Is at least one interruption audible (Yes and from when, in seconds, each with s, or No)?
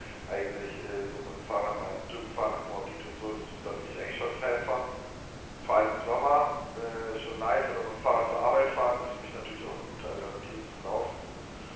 No